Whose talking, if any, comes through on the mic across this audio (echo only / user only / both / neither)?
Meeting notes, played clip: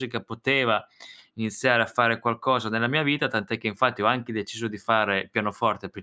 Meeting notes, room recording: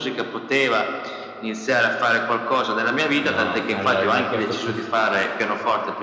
both